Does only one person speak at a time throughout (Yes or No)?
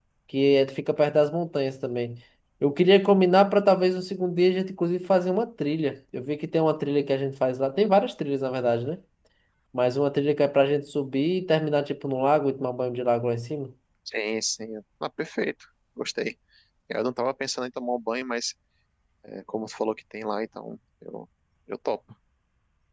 Yes